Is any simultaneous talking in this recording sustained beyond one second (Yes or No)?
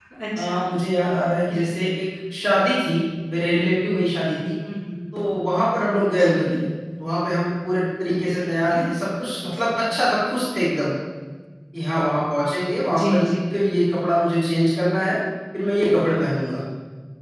No